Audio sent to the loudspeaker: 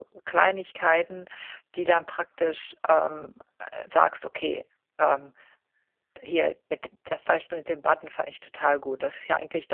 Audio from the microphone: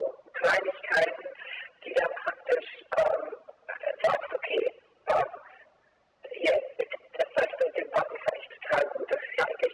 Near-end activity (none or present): none